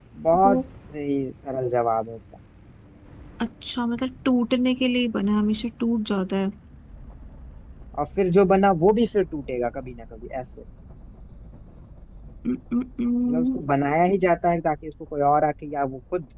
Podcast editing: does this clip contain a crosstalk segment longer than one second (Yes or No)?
No